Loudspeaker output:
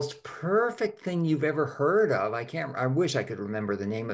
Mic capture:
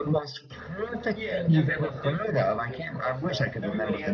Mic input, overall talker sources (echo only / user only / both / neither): both